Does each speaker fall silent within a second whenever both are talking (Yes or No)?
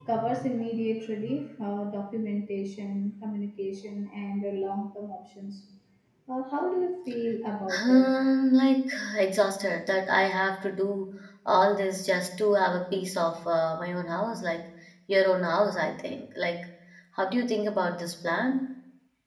Yes